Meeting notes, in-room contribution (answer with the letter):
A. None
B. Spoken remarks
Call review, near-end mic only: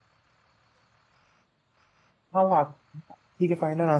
B